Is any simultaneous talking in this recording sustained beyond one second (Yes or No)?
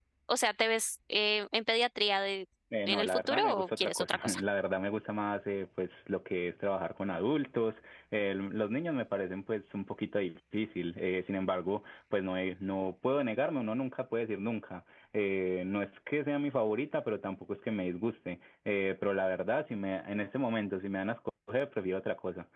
Yes